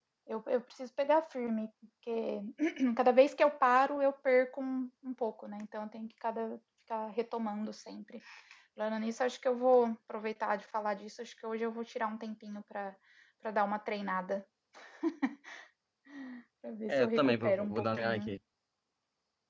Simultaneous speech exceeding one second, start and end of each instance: 16.9-18.3

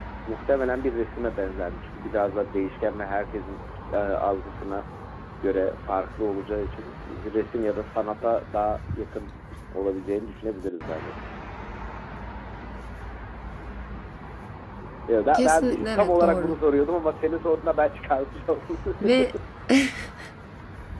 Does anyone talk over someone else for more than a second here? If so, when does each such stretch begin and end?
15.3-16.5

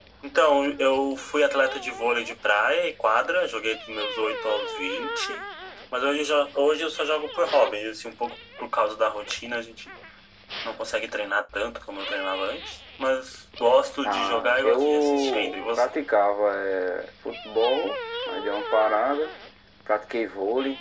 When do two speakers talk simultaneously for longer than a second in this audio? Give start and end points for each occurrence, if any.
14.0-15.9

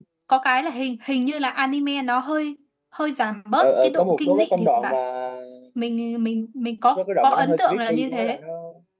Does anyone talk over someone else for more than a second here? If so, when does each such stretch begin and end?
3.6-4.9, 7.0-8.4

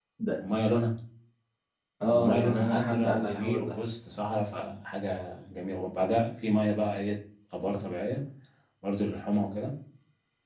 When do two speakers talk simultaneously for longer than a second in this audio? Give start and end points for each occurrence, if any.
2.1-3.8

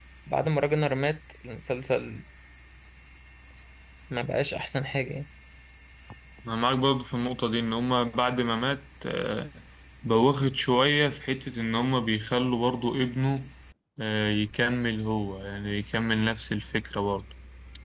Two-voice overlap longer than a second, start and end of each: none

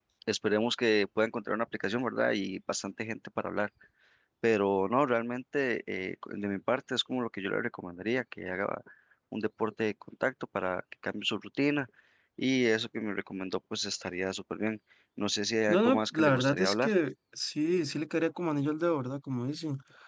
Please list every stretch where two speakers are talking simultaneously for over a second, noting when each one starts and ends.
15.7-16.9

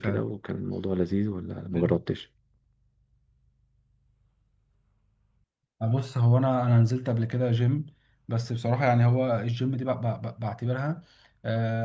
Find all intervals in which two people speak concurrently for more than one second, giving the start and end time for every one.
none

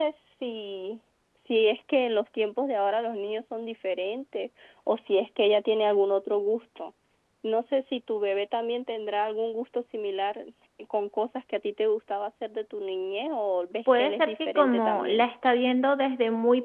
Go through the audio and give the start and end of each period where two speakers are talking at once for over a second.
13.9-15.2

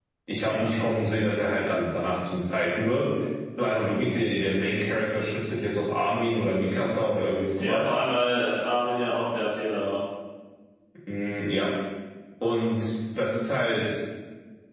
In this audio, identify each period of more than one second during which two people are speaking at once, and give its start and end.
none

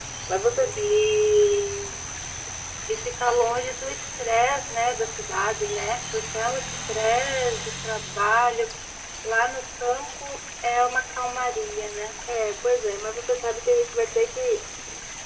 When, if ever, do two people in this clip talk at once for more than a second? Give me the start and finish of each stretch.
none

